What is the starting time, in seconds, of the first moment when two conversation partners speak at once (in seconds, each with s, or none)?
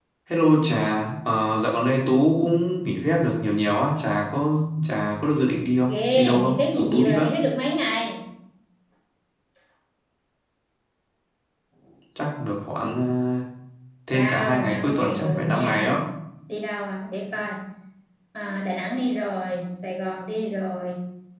5.9 s